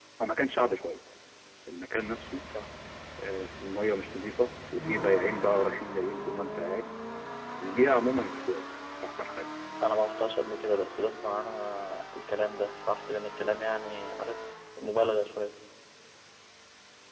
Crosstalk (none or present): none